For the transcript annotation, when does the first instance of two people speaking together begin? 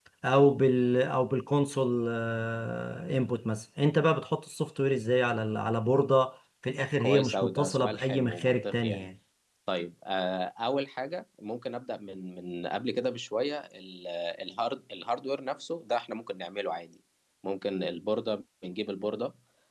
7 s

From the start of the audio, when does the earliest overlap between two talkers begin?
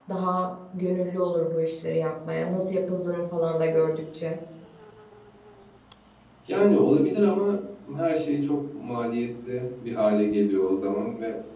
none

